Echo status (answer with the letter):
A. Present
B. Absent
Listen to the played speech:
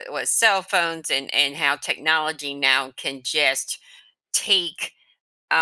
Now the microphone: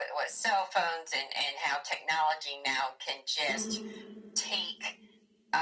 A